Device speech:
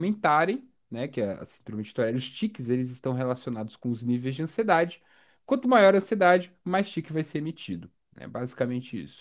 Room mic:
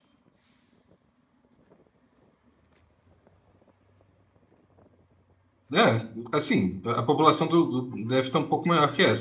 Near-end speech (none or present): present